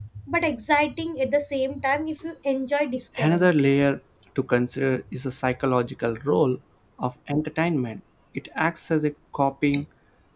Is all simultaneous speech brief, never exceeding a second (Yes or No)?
Yes